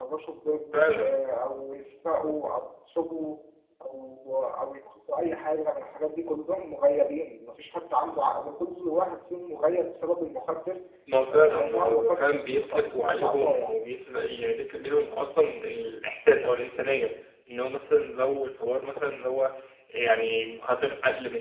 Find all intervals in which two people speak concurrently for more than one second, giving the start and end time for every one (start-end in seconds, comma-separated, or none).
11.3-13.8